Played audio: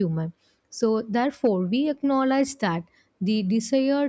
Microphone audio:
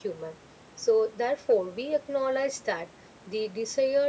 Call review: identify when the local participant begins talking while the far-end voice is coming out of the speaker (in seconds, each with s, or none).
none